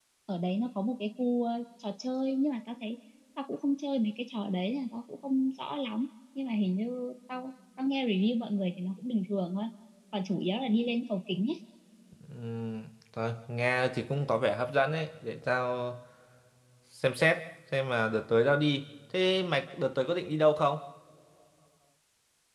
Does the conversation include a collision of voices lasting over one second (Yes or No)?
No